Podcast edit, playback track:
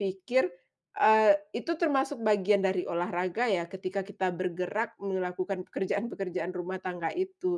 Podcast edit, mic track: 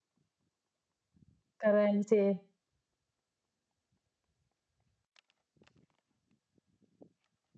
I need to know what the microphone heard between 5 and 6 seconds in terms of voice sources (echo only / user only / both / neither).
neither